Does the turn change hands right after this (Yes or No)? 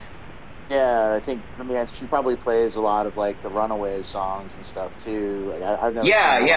Yes